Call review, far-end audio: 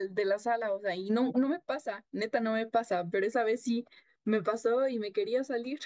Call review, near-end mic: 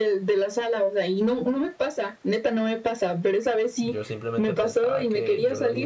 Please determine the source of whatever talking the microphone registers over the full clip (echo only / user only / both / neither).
both